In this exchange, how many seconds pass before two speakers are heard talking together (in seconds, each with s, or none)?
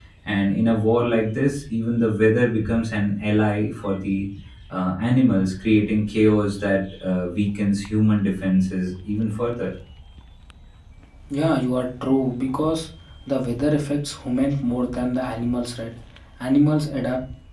none